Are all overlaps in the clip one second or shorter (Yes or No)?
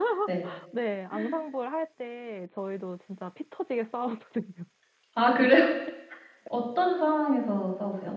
Yes